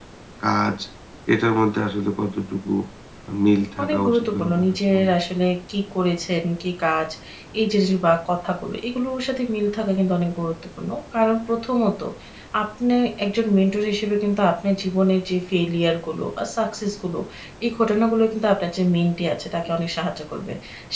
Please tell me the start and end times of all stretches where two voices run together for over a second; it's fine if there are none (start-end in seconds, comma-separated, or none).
3.8-5.1